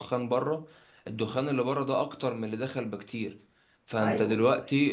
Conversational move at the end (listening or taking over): listening